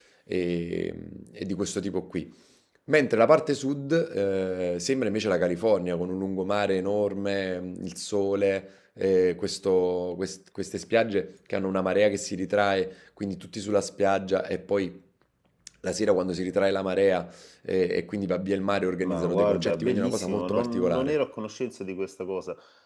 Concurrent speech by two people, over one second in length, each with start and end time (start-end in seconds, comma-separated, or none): 19.0-21.2